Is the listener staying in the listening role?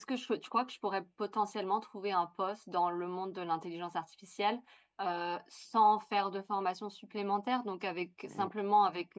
Yes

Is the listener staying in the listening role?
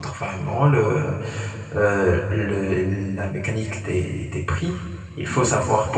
Yes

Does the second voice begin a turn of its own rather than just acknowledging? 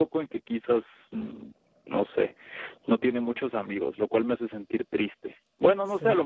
No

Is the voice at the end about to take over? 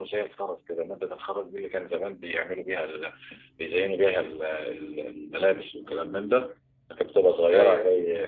No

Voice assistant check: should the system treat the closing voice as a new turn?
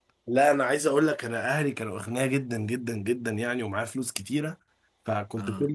No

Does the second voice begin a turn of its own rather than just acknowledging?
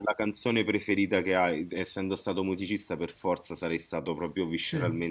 No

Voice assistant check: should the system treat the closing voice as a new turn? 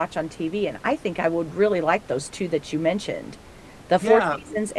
No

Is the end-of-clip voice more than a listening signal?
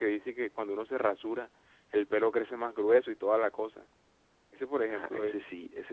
Yes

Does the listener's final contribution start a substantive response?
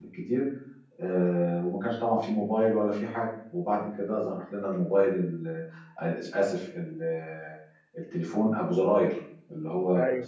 No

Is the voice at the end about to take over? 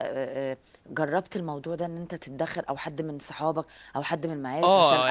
Yes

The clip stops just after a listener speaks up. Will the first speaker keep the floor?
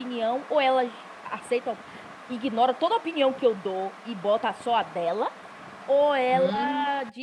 Yes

